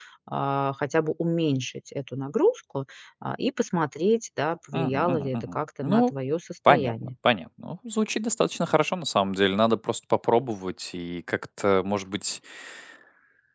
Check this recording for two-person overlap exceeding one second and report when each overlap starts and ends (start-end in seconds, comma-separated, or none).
4.7-6.1